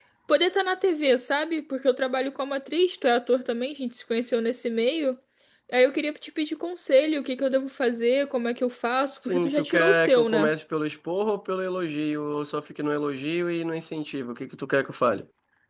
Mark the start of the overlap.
9 s

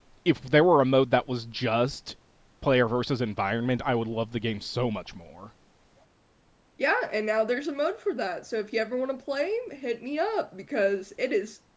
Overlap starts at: none

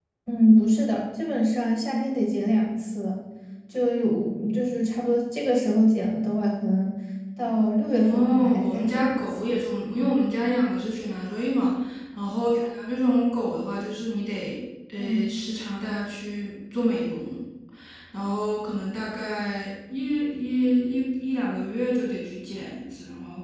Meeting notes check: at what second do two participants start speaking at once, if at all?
8 s

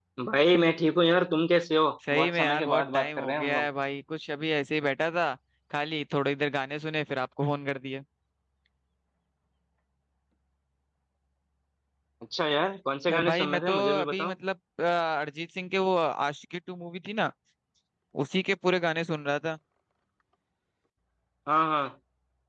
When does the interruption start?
2 s

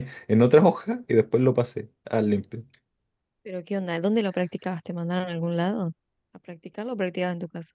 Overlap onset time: none

